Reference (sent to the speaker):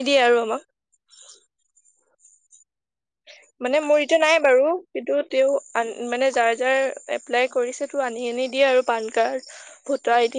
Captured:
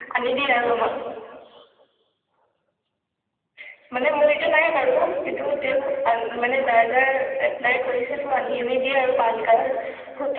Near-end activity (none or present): none